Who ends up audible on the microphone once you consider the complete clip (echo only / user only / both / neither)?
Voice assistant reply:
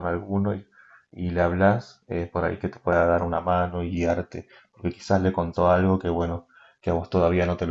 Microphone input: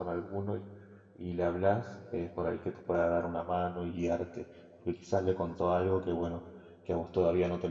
echo only